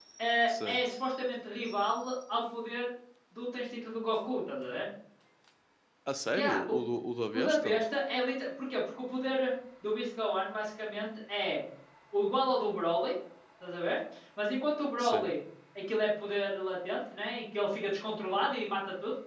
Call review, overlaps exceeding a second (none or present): none